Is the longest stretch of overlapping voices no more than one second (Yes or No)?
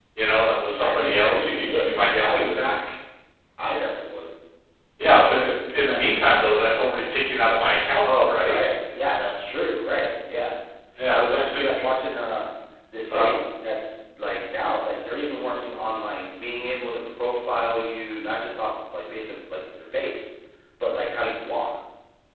No